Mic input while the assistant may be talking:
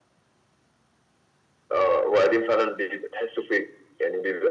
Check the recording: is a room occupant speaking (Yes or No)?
No